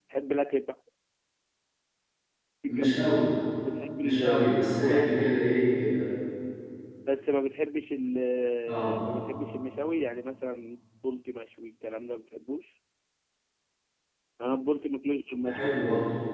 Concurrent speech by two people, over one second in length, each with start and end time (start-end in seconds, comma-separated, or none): 4.0-5.3